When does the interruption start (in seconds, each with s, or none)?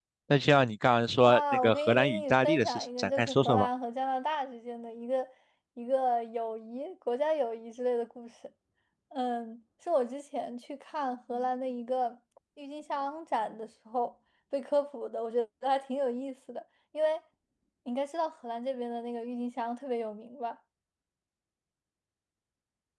1.2 s